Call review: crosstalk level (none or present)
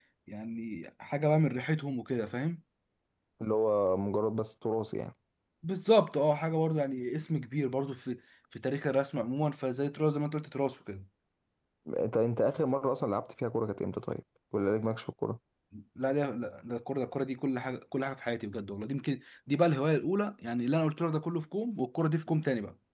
none